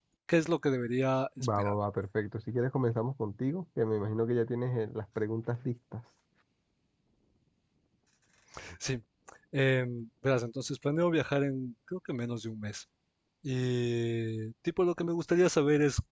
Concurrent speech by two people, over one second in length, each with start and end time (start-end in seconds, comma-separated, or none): none